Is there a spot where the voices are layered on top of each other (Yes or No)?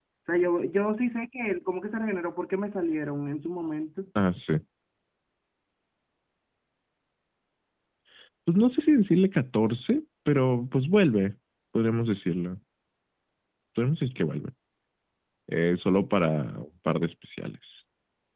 No